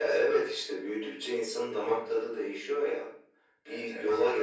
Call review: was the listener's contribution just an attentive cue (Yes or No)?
Yes